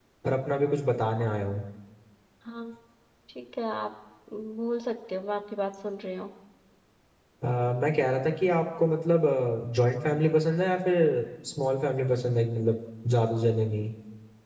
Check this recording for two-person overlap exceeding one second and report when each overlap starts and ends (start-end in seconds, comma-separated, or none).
none